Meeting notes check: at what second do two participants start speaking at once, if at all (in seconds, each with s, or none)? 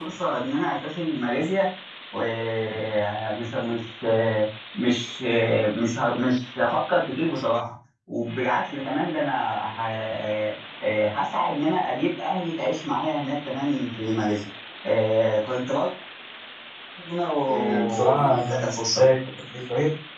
17.5 s